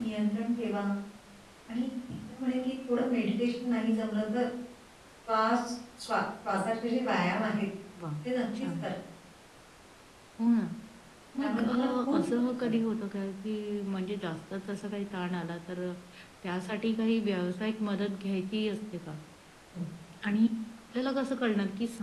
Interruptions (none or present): present